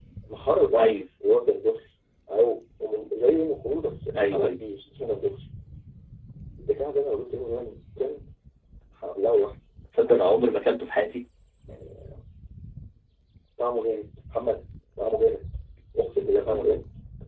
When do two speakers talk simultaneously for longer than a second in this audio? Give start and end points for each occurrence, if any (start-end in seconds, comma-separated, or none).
none